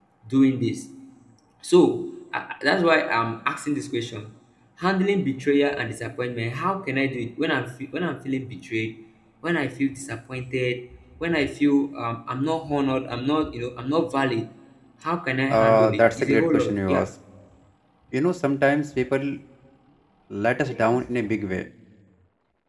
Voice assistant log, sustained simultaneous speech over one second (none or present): present